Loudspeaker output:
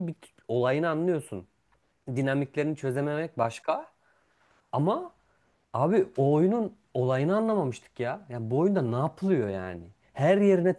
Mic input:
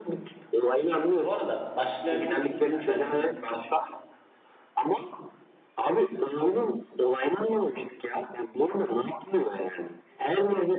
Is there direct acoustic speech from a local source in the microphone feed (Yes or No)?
Yes